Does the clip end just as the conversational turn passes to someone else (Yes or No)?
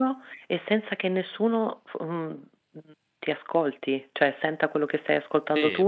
Yes